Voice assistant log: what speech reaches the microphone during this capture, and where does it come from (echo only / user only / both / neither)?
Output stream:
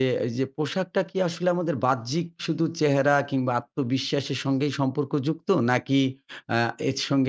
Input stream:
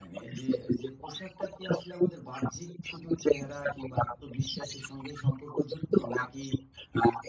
echo only